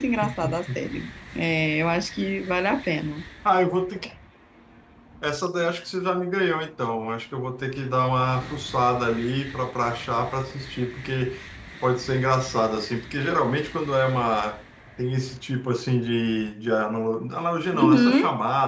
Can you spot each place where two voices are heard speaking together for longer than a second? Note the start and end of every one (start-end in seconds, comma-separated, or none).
none